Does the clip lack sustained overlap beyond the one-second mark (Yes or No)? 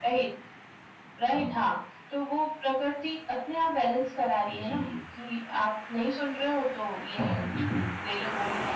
Yes